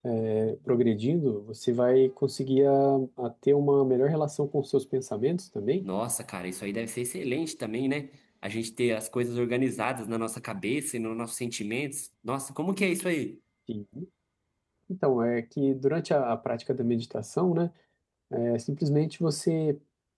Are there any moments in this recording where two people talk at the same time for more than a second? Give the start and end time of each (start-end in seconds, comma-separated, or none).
none